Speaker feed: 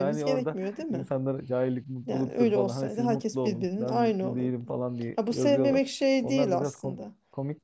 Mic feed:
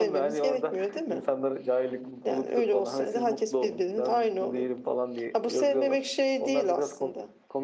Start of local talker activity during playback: none

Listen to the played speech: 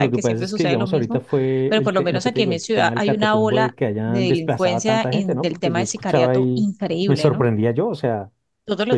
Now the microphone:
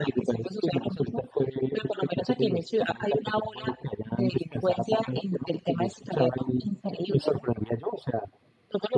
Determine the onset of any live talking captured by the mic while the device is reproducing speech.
none

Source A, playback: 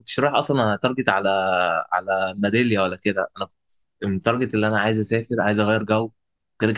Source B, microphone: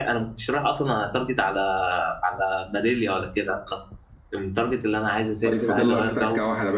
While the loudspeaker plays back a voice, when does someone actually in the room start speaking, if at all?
5.4 s

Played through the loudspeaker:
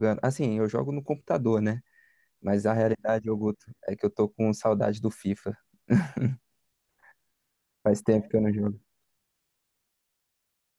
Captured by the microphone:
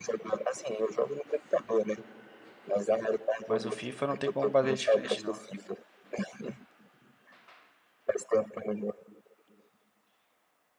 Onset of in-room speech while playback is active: 3.5 s

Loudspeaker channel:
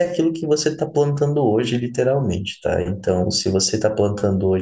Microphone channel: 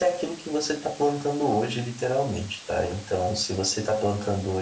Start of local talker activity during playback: none

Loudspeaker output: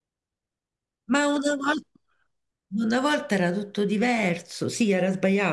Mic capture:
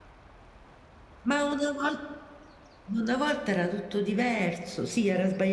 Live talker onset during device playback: none

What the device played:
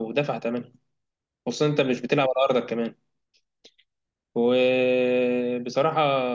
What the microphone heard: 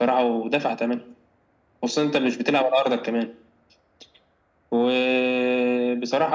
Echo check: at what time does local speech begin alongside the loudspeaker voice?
none

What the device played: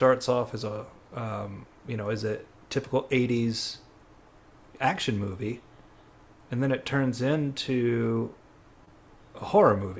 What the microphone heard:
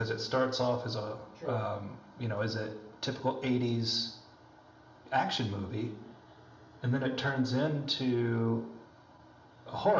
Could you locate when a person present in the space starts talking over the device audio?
1.3 s

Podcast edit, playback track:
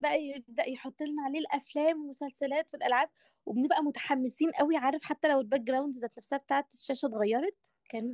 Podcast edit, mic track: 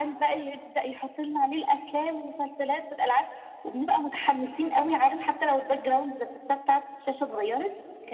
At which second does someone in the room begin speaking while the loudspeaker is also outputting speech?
none

